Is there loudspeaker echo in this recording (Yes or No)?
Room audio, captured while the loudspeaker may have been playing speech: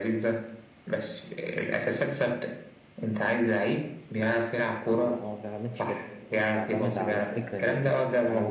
Yes